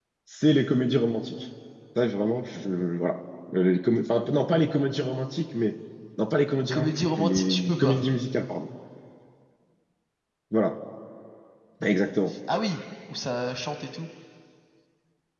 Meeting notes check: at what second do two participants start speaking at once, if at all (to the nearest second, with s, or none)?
7 s